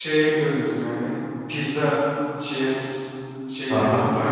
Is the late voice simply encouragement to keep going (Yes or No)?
No